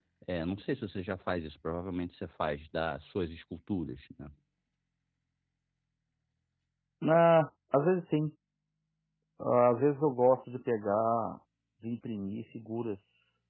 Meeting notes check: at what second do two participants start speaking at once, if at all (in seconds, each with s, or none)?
none